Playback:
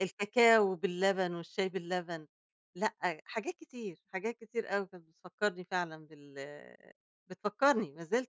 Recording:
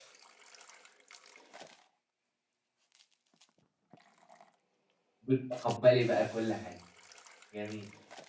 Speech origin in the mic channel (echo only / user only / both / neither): user only